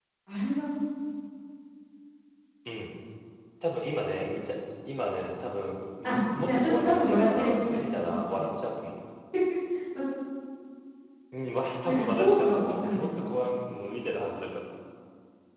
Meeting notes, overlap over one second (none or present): present